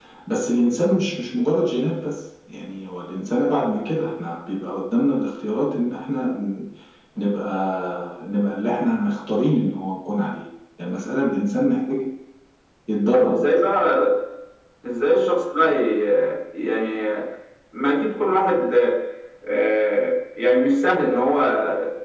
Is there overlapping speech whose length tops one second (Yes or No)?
No